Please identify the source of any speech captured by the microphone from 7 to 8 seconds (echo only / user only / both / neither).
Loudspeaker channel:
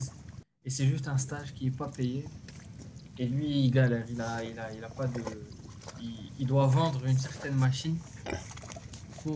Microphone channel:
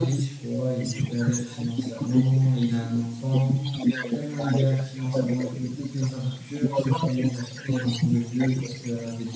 both